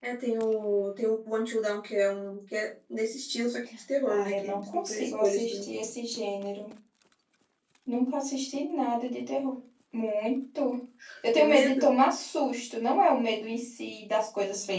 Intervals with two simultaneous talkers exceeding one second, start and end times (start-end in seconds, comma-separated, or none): 4.1-5.6